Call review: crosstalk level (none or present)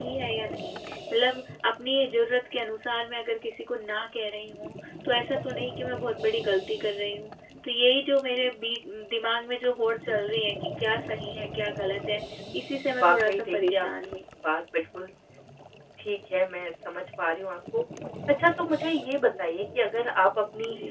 present